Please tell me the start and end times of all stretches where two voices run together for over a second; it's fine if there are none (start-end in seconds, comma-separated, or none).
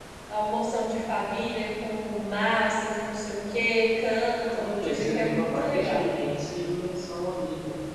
4.5-6.1